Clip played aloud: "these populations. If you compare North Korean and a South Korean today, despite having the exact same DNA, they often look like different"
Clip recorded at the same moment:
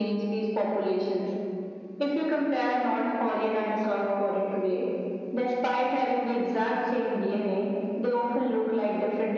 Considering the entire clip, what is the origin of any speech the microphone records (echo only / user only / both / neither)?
echo only